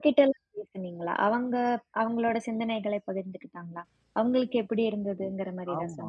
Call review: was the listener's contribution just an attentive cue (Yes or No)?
No